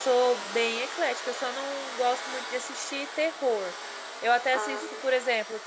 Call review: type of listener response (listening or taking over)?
listening